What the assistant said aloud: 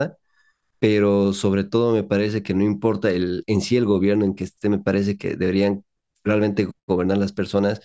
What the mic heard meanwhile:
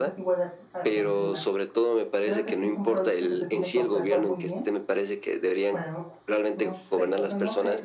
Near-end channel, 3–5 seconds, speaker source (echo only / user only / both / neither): both